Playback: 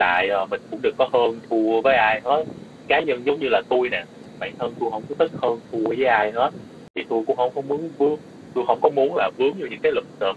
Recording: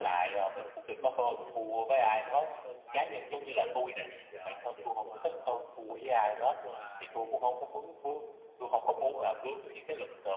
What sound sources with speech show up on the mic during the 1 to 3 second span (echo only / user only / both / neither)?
both